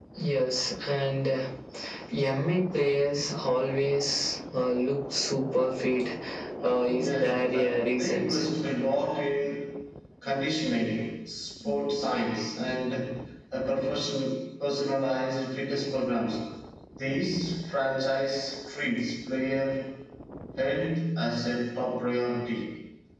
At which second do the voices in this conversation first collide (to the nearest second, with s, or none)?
7 s